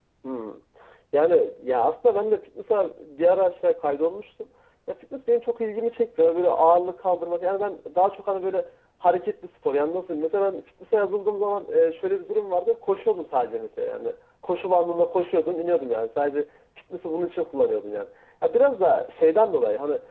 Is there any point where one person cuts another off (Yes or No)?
No